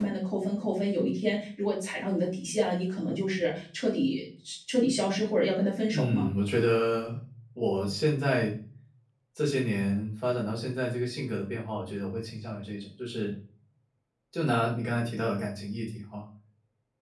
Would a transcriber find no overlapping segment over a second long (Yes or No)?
Yes